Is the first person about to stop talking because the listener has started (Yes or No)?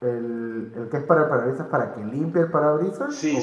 Yes